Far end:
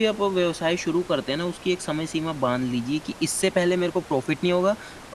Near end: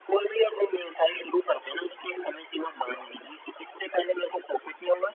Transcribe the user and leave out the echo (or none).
none